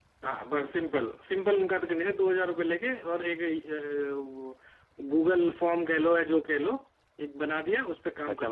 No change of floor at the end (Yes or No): No